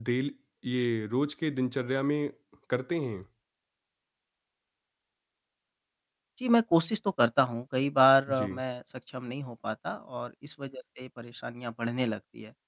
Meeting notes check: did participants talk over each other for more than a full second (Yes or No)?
No